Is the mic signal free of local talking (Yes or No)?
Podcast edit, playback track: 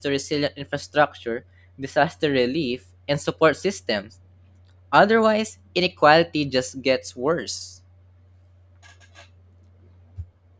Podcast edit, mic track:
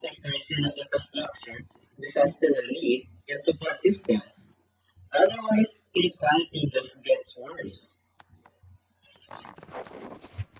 Yes